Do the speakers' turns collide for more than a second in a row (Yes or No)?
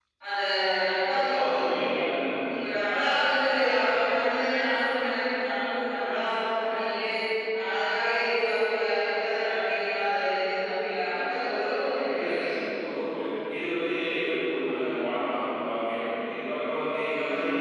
No